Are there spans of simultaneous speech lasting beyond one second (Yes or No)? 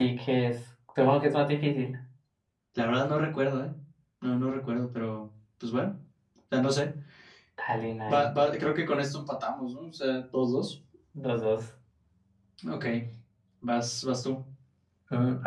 No